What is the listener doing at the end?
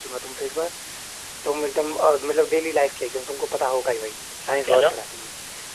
listening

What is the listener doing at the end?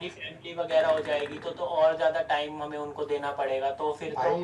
taking over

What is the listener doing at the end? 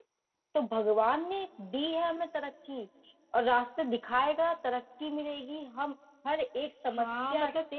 taking over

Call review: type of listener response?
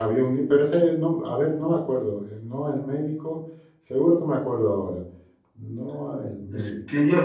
taking over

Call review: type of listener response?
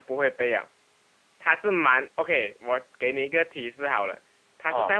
listening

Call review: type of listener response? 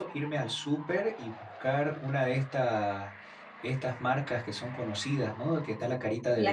listening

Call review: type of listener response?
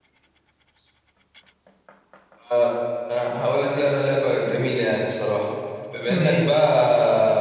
listening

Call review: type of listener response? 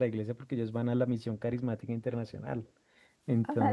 listening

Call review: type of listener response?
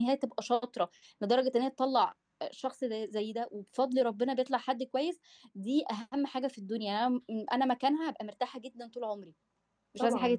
taking over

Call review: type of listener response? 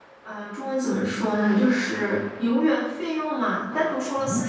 listening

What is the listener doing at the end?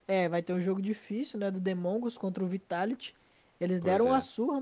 listening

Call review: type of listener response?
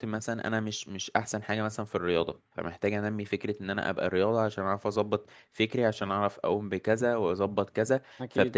listening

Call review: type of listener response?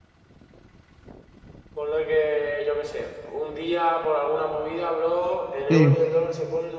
listening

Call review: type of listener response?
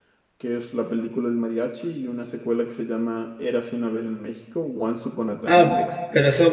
taking over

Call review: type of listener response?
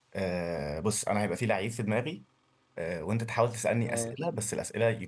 listening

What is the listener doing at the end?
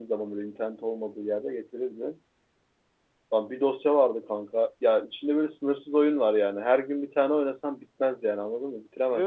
listening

